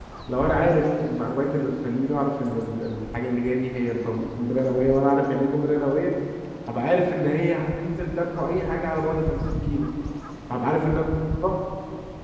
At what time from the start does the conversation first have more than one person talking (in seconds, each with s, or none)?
none